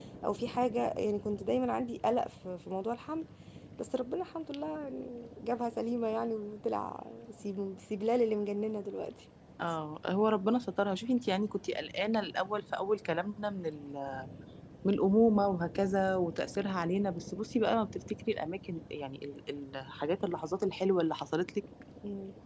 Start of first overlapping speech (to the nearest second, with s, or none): none